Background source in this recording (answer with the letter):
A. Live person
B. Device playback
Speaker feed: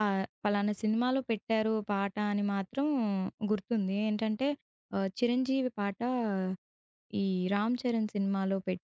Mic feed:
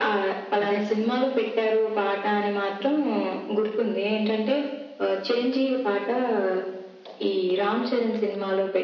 A